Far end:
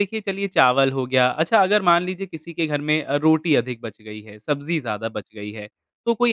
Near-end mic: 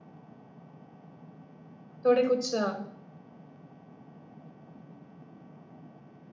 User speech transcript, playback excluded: थोड़े कुछ

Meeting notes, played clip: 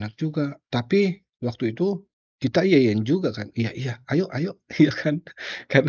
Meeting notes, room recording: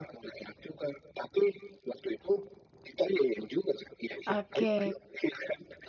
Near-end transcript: Oke.

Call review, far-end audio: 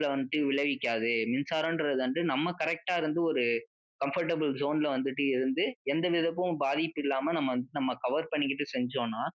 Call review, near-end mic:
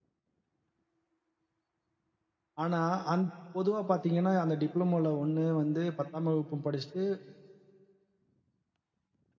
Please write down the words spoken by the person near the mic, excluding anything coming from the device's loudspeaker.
ஆனா அந் பொதுவா பார்த்தீங்கன்னா அந்த டிப்ளோமோல ஒண்ணு வந்து பத்தாம் வகுப்பு படிச்சுட்டு

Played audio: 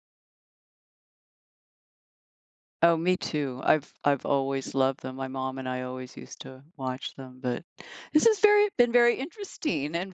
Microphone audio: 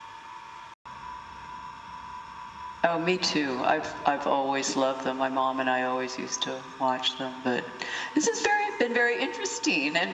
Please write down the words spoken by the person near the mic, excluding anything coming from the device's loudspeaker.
none

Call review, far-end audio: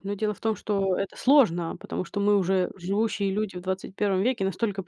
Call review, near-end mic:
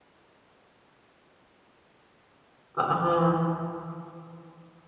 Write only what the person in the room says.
А, ага.

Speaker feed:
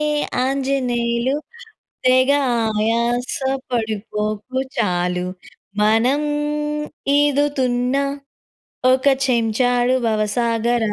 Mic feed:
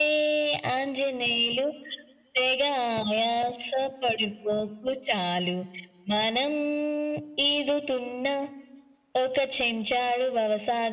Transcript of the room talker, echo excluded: none

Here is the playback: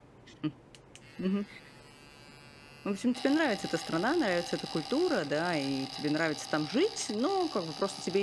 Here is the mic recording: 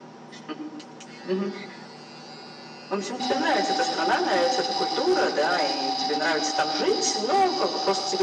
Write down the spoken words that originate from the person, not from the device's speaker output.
none

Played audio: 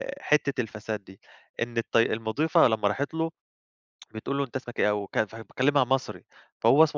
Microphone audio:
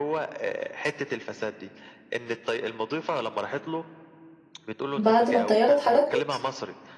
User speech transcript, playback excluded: بعد ما الطيارة اتحركت؟

